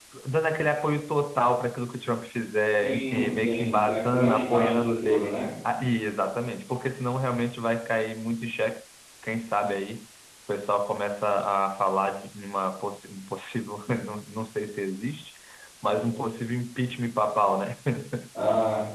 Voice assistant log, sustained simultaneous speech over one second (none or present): present